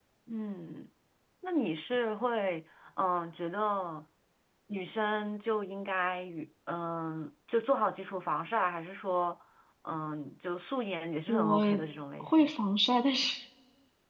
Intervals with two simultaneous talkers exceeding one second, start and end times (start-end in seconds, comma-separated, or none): none